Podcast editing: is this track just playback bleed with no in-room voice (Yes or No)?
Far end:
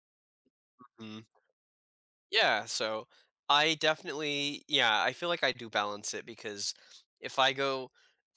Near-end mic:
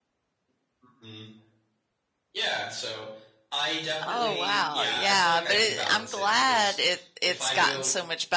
No